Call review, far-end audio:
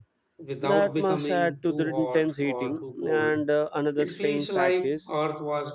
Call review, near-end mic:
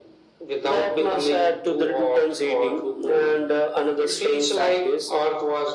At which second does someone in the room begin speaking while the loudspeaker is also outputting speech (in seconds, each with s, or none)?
none